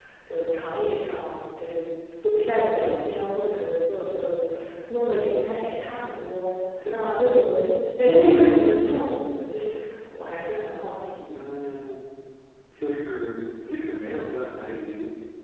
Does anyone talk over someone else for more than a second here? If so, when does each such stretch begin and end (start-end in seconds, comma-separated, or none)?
none